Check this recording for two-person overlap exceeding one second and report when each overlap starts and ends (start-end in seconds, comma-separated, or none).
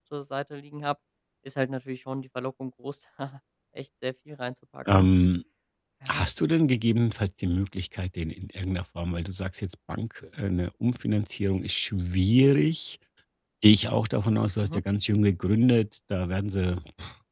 none